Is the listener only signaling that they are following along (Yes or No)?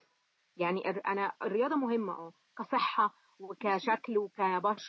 Yes